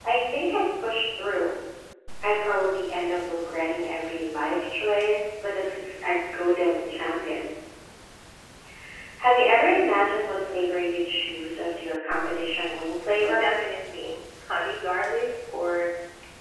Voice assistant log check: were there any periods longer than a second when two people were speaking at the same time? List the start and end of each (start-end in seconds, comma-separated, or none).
none